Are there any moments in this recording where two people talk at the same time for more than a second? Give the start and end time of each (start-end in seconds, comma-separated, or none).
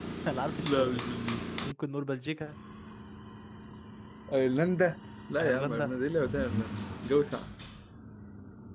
none